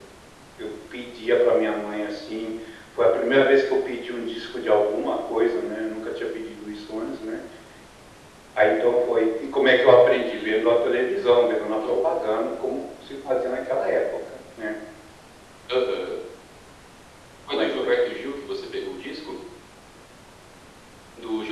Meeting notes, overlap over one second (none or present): none